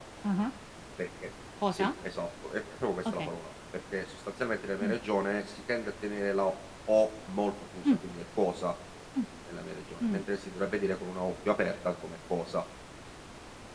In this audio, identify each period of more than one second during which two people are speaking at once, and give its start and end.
none

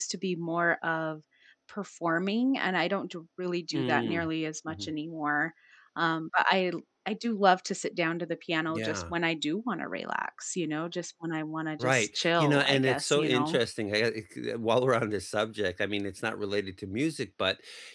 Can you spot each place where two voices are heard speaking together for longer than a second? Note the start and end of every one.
11.8-13.6

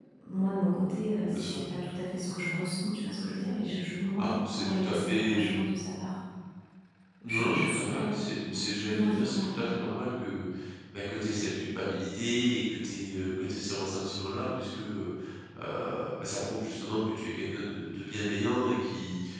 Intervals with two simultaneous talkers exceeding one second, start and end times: 4.2-5.6, 7.2-9.6

